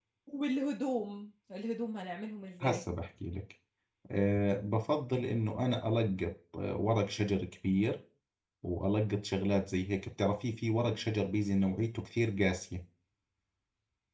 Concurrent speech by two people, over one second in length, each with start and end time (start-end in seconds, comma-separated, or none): none